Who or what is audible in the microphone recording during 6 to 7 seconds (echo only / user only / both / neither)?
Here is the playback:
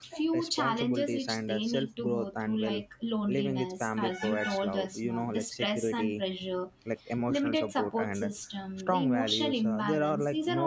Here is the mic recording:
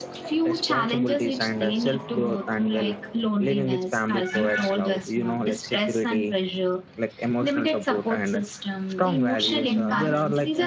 echo only